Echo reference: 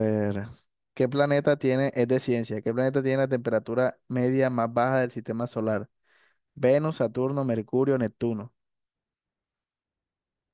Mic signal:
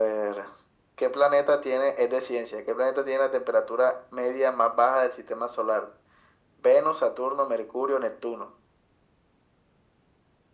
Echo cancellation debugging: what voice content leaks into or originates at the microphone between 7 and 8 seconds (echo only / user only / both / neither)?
echo only